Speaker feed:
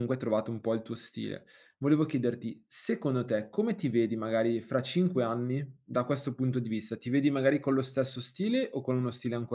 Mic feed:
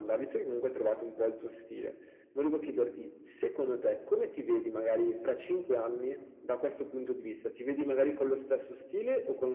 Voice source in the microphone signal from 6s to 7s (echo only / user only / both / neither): echo only